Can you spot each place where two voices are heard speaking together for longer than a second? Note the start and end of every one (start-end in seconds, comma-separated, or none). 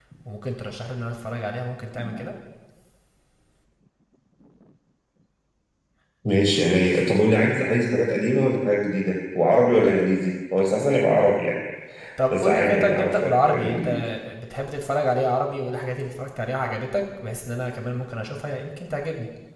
12.3-13.9